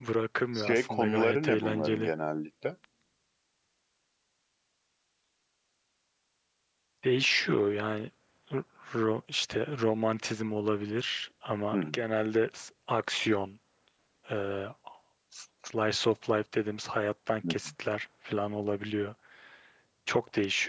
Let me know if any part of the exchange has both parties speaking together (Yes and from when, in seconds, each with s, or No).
Yes, from 0.5 s